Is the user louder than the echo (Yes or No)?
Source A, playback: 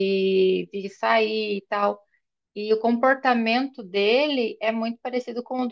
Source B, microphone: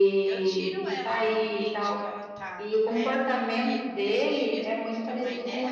No